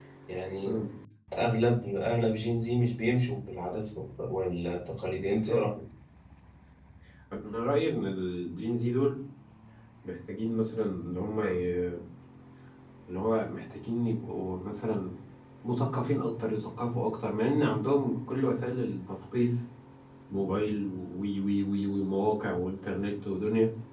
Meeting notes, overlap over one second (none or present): none